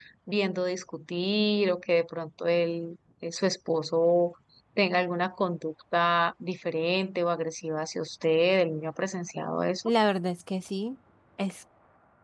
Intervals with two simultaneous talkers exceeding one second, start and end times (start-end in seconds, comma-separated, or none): none